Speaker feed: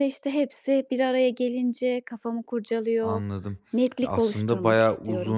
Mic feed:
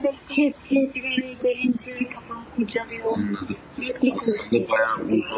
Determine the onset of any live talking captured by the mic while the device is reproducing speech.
none

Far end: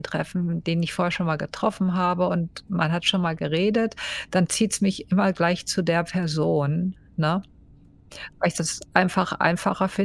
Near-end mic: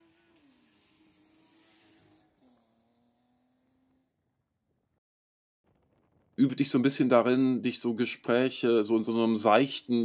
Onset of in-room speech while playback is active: 6.3 s

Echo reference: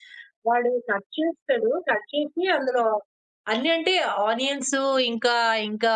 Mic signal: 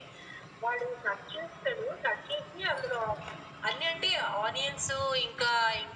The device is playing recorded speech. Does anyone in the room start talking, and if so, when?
none

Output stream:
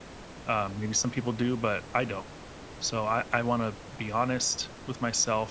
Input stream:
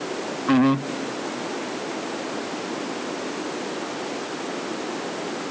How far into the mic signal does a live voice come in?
0.5 s

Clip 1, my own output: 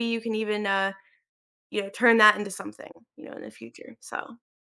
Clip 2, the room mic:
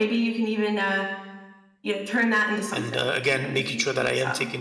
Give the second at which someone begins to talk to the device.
2.7 s

